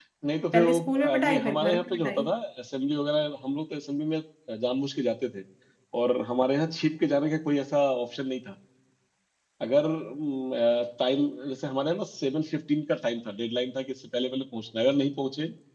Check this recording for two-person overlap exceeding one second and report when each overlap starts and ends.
0.5-2.3

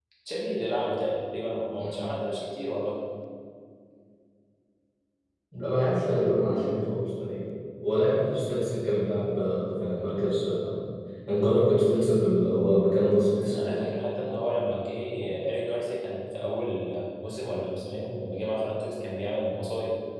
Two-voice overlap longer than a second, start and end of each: none

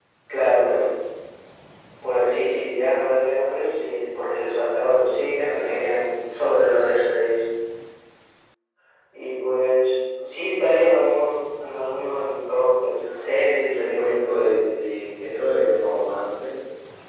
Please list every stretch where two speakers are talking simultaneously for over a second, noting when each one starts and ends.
13.1-14.5

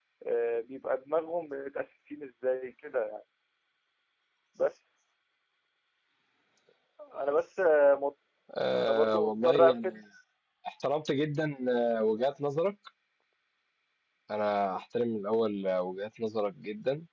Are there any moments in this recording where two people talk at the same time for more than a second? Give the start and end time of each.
8.8-10.0

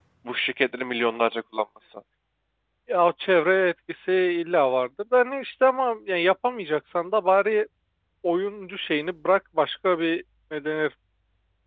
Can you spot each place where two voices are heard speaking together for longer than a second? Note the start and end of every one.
none

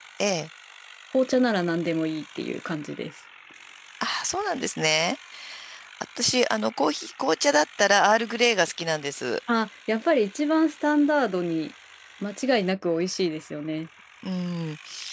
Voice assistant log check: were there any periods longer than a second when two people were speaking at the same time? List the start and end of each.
none

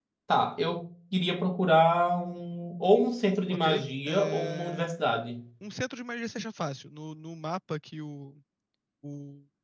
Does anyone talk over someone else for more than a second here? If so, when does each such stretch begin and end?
3.5-4.9

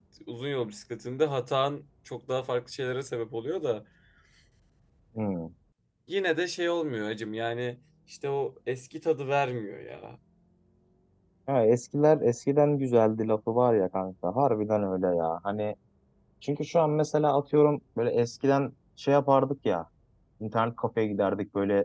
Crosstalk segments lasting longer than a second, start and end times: none

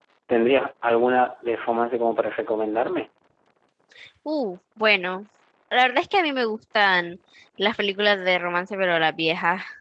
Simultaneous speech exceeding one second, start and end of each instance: none

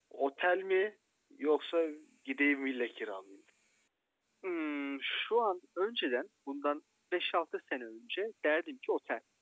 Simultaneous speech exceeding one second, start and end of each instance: none

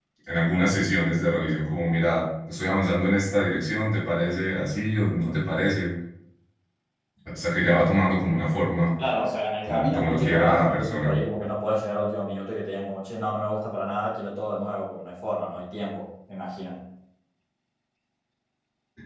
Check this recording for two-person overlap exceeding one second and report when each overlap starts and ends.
9.6-11.2

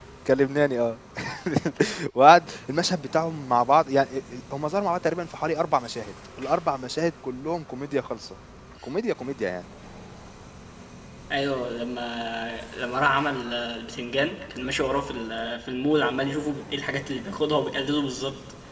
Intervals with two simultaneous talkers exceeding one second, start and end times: none

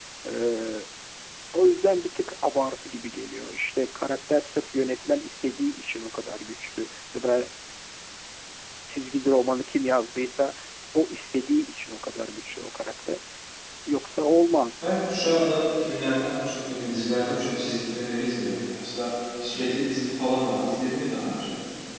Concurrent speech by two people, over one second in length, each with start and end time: none

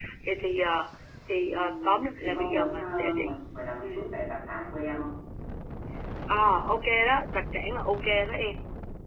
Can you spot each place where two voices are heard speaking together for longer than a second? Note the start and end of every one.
1.4-3.3

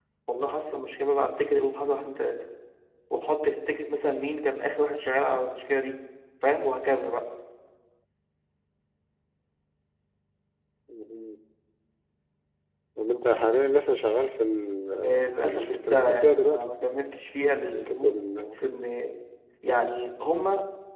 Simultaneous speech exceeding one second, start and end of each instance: 15.0-16.7

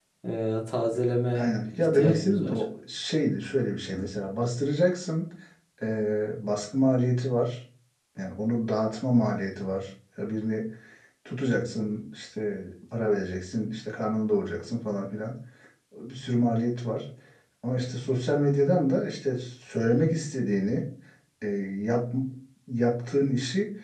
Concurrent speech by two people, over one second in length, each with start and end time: 1.4-2.6

